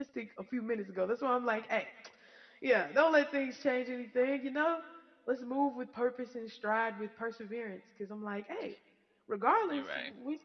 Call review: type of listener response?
listening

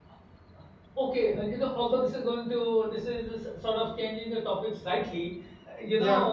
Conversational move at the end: listening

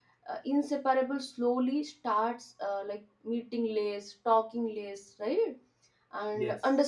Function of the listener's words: listening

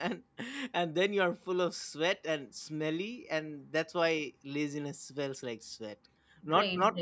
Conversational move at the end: listening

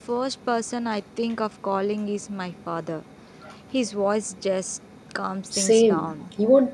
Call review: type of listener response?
taking over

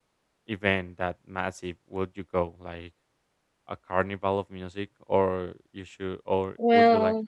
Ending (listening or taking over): listening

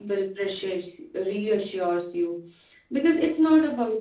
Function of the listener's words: listening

